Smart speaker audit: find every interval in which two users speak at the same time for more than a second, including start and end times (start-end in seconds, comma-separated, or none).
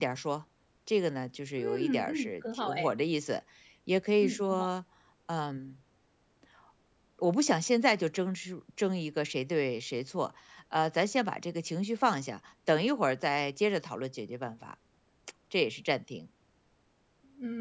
1.6-2.9